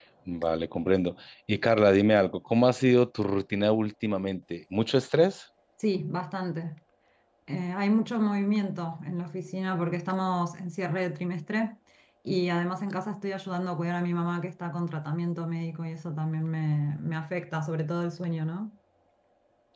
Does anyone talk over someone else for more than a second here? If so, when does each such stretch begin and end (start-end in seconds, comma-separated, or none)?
none